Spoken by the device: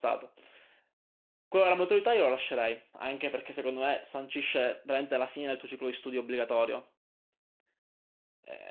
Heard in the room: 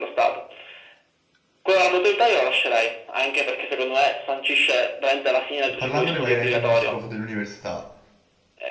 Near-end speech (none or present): present